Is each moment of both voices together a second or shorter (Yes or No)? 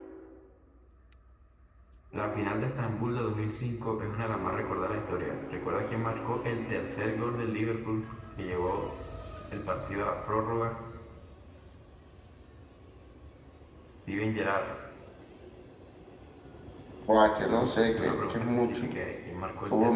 No